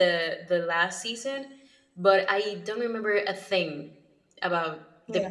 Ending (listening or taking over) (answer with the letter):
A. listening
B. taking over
A